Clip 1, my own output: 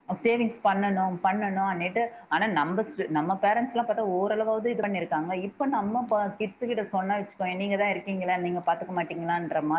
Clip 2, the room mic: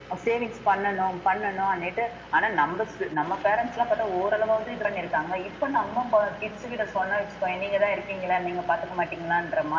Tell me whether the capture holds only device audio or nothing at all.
Yes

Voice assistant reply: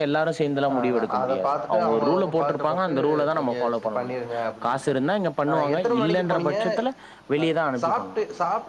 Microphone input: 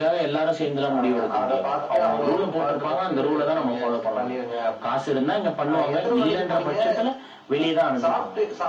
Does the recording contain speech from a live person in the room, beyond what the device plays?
No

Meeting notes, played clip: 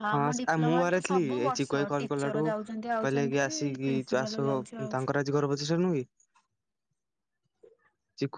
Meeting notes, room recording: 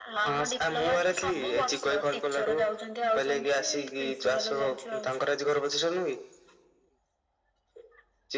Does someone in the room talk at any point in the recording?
No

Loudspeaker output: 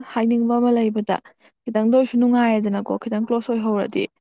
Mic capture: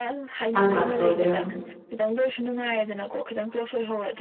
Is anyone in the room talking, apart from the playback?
Yes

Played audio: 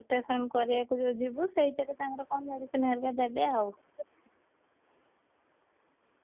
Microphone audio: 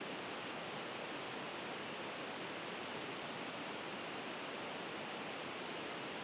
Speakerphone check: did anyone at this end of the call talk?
No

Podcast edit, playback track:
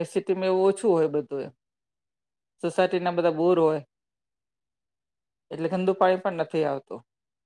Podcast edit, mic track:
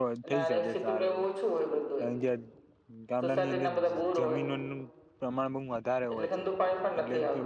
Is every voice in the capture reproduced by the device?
No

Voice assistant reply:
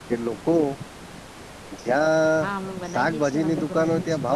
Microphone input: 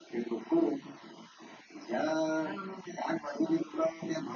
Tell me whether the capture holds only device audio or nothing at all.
Yes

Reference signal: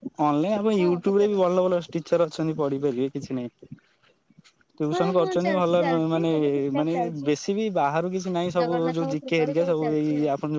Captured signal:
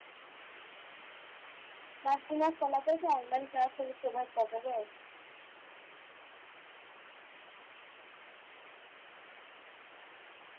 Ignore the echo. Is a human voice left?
Yes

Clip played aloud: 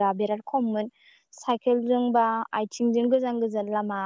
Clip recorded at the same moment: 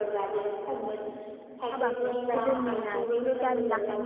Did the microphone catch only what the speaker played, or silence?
No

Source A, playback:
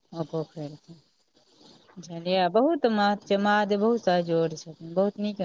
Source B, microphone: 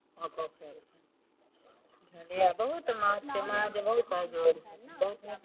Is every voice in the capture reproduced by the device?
No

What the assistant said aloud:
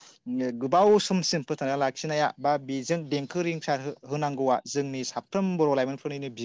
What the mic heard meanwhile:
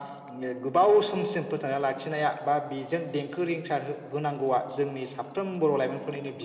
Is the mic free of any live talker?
Yes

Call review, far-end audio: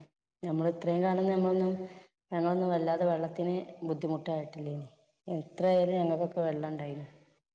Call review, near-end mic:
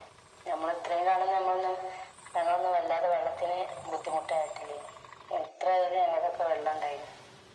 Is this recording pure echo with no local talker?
Yes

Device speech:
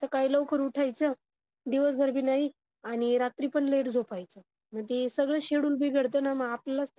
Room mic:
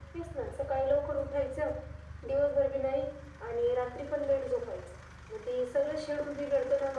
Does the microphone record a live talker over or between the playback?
No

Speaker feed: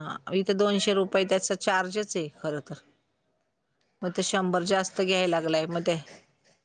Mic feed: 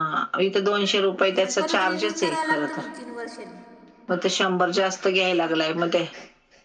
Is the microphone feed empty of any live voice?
No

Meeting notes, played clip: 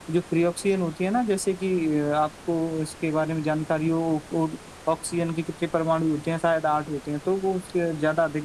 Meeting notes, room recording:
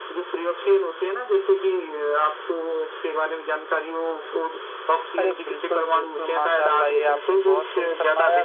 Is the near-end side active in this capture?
Yes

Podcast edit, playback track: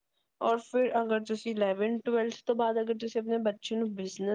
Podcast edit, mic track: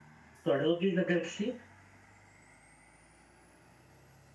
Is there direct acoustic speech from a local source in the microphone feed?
Yes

